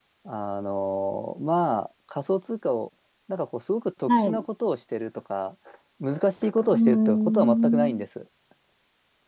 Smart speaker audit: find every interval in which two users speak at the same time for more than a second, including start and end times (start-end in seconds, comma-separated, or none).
6.6-8.0